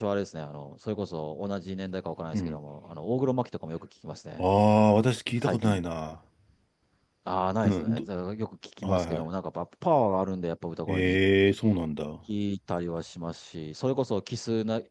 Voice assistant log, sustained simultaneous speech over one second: none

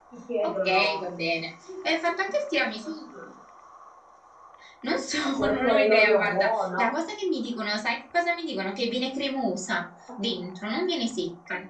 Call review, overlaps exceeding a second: present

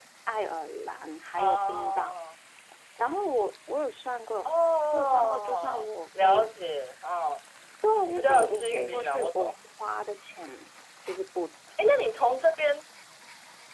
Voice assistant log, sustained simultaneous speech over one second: present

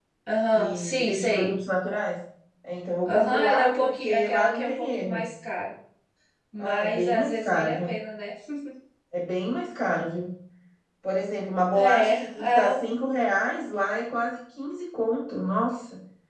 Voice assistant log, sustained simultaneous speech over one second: present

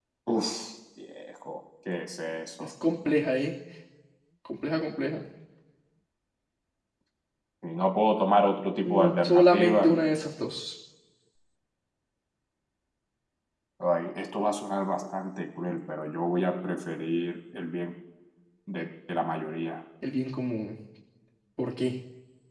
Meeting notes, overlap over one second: present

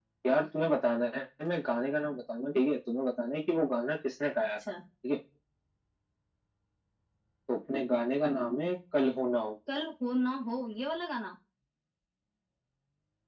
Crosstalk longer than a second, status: none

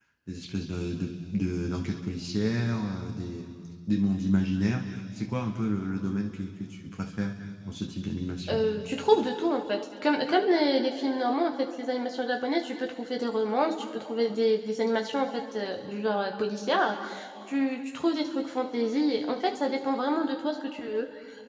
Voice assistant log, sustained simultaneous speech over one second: none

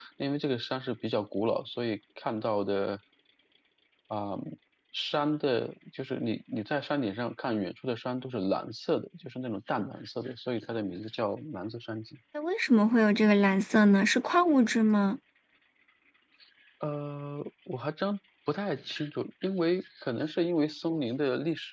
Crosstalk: none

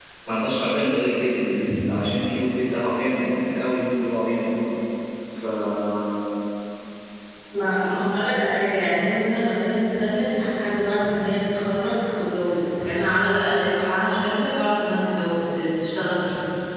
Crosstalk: none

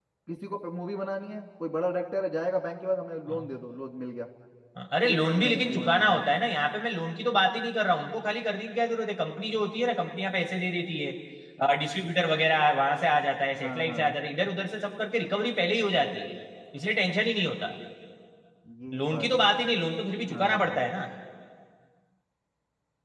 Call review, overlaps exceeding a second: present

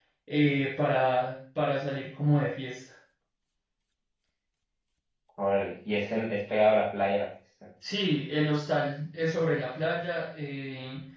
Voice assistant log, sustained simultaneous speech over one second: none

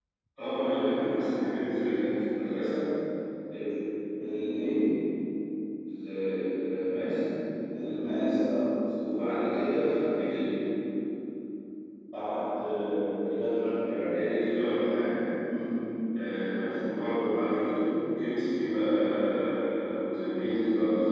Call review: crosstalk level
none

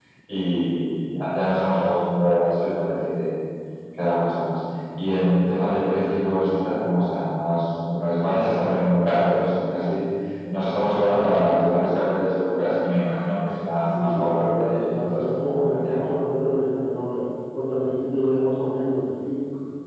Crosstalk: present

